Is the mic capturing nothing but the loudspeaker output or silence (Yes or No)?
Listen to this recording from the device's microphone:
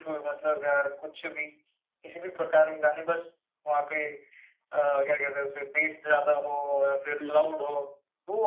No